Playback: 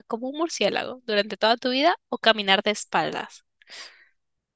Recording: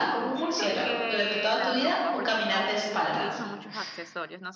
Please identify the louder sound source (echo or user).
echo